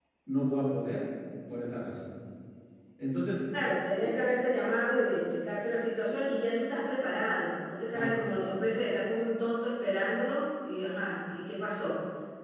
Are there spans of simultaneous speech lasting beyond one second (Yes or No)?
No